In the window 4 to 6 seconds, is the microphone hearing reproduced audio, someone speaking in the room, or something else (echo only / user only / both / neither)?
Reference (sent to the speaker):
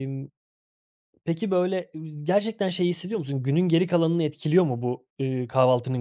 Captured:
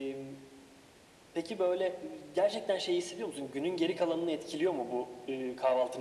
echo only